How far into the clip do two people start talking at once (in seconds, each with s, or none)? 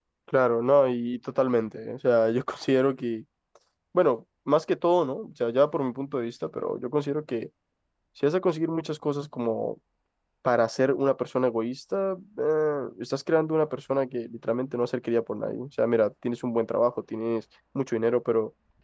none